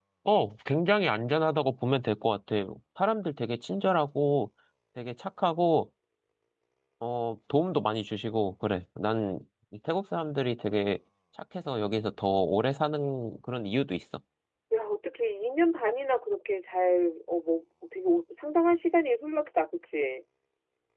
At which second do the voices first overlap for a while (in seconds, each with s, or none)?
none